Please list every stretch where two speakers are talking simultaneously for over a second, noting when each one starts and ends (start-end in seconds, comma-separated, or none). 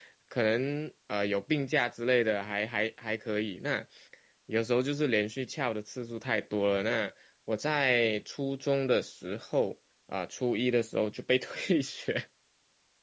none